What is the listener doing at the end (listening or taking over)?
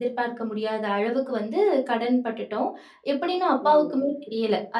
listening